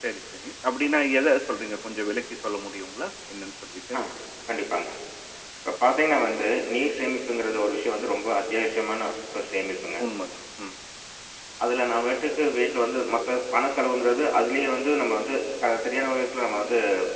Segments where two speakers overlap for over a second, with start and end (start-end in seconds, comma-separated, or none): none